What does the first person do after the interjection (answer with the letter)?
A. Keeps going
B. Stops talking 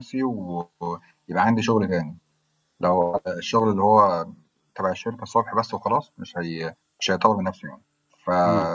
A